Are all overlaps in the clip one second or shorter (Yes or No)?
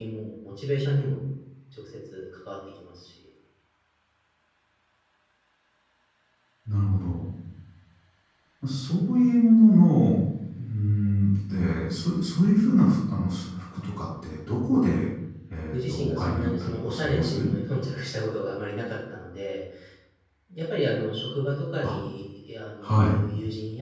No